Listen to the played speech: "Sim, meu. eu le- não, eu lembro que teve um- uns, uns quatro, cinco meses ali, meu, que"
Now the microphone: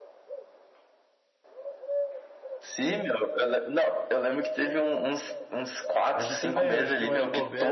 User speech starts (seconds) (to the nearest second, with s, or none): 6 s